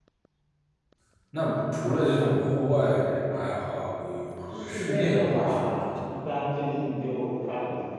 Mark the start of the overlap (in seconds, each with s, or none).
4.5 s